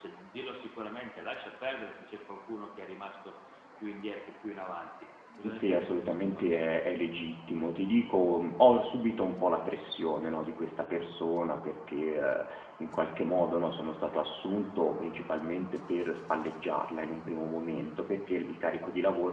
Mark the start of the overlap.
5.4 s

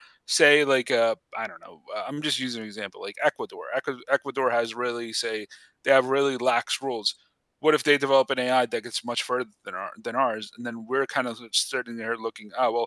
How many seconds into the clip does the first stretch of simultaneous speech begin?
none

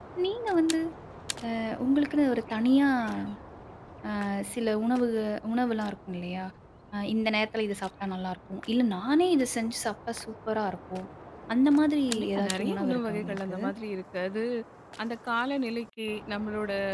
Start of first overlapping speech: 12.1 s

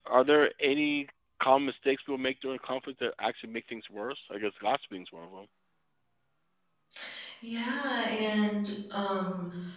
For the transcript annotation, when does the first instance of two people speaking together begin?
none

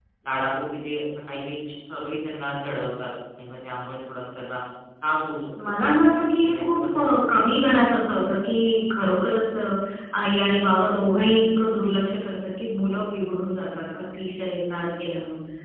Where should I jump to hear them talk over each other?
5.6 s

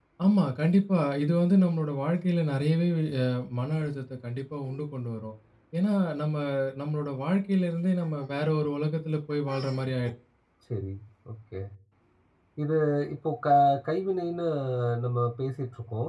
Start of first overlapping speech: none

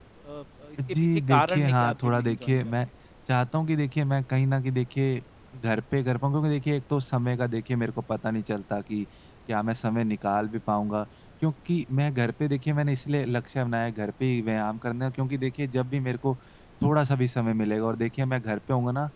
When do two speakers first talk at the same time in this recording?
0.9 s

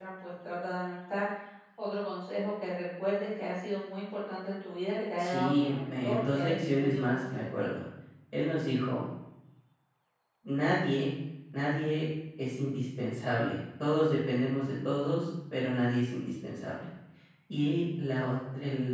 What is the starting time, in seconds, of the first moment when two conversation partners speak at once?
5.2 s

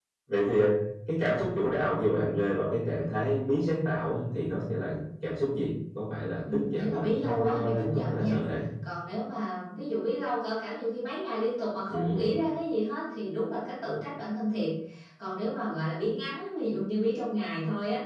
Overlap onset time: 6.5 s

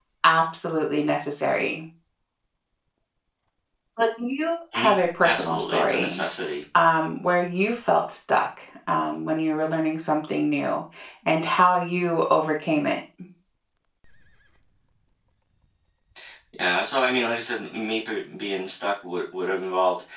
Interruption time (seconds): 4.7 s

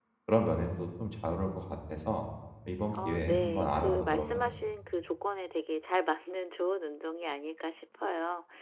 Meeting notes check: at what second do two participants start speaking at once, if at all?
2.9 s

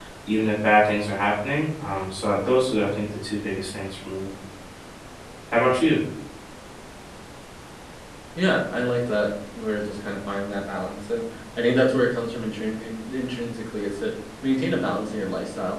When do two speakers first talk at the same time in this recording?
none

